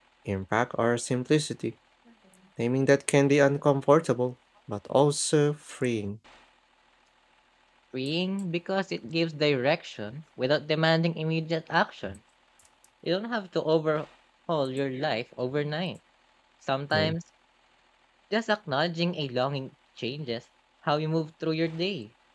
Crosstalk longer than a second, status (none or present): none